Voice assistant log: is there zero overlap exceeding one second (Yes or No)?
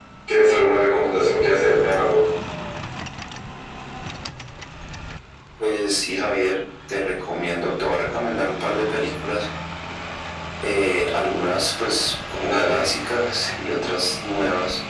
Yes